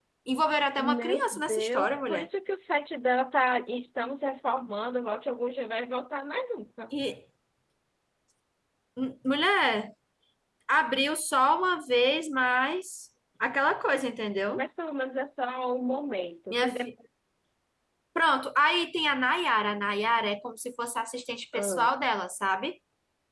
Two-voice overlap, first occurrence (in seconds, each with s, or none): 0.8 s